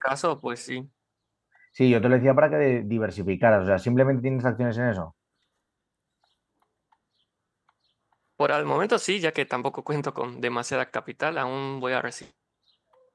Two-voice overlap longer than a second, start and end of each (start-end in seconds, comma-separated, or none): none